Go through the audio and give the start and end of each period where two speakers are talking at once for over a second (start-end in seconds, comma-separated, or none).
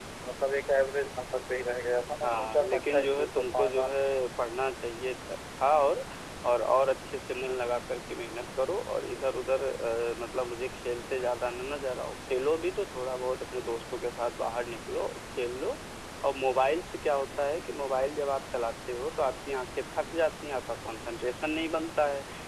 2.2-3.9